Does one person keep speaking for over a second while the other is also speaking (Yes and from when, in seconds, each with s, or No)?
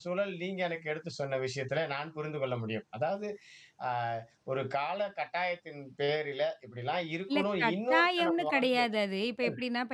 Yes, from 7.3 s